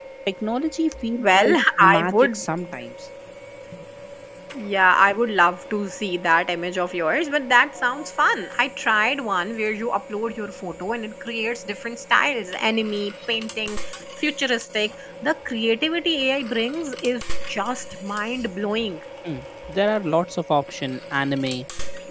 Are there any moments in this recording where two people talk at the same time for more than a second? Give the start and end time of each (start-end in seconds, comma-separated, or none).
1.2-2.4